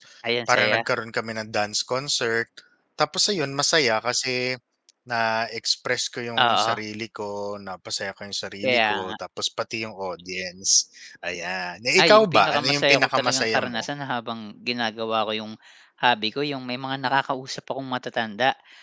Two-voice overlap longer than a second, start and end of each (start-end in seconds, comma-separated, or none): 12.0-13.8